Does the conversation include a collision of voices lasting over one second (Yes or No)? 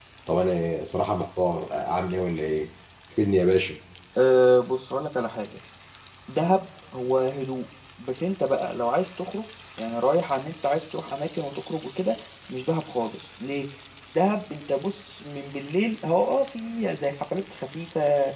No